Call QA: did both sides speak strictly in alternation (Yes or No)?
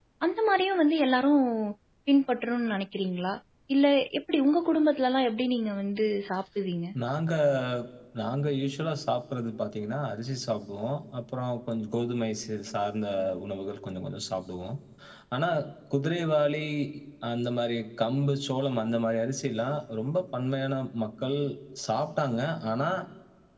Yes